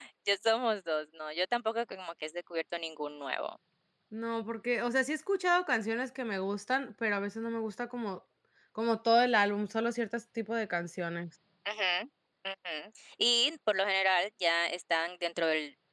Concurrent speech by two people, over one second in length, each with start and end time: none

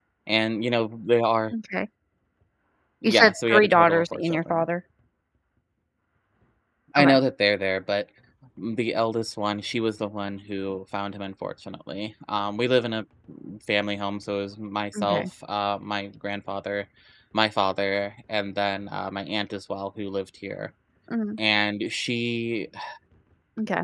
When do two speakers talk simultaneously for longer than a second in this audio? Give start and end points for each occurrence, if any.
3.0-4.6

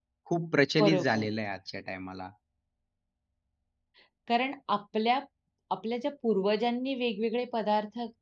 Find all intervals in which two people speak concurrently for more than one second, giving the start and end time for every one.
none

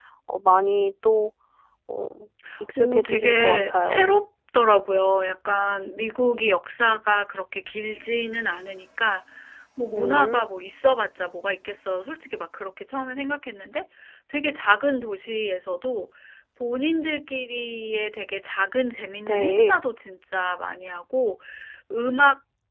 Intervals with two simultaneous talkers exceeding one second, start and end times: 2.8-4.0

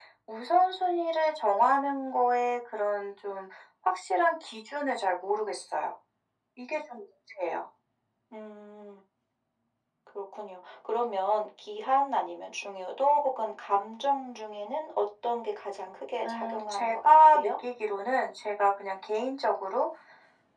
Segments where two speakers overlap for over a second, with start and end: 16.2-17.5

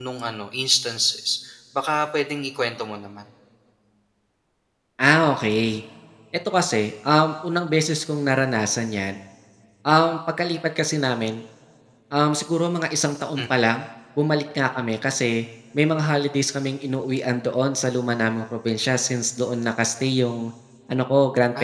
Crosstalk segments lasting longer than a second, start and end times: none

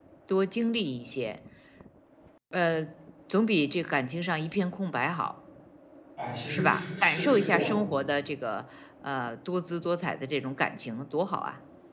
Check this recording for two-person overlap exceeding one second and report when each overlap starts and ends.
6.5-8.1

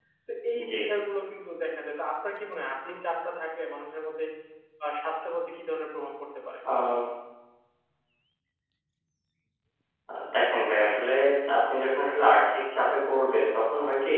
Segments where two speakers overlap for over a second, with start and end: none

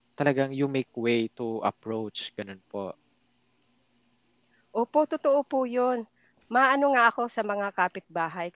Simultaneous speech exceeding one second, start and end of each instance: none

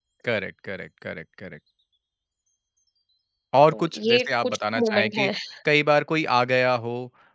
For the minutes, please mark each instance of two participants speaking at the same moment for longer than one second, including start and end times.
3.7-5.3

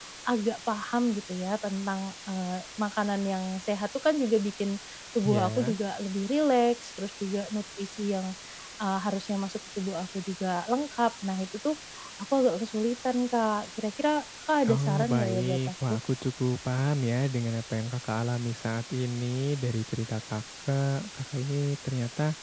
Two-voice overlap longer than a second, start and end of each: 14.7-16.0

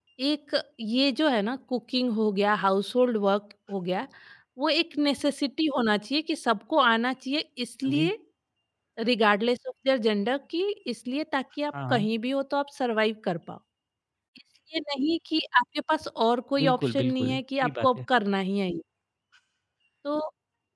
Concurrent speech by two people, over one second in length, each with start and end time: 16.6-18.0

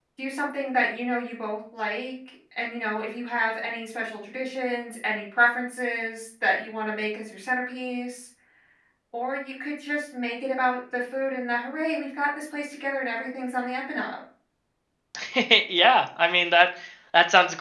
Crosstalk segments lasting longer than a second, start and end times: none

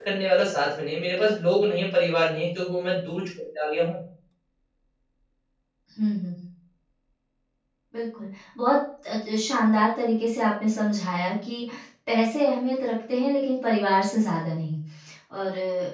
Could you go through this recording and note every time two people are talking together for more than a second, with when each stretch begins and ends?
none

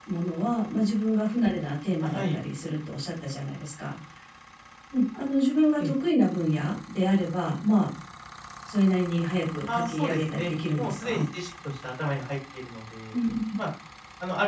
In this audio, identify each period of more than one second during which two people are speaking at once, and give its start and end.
9.7-11.2

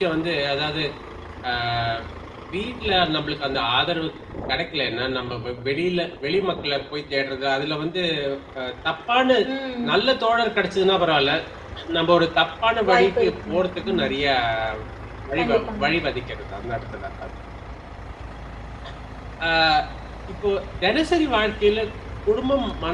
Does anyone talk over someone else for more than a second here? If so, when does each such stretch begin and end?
12.9-14.1

